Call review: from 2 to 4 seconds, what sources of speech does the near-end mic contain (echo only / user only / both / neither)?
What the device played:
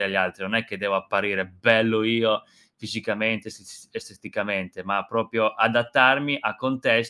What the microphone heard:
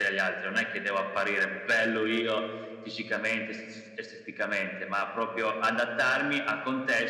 echo only